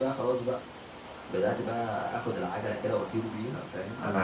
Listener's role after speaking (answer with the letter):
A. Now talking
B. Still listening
A